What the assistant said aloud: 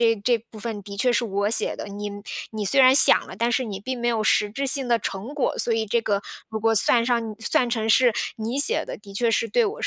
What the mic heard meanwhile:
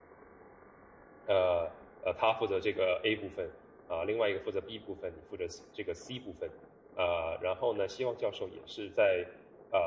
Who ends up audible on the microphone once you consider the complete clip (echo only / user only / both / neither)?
user only